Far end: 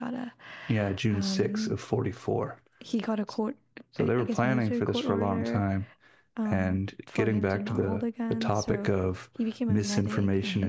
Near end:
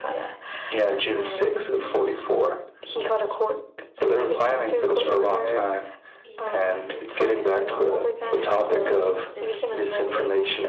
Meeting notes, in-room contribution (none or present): present